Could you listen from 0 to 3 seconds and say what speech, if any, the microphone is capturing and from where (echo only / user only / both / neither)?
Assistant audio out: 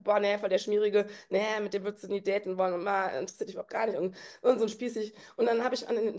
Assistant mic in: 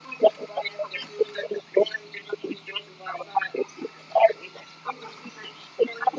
echo only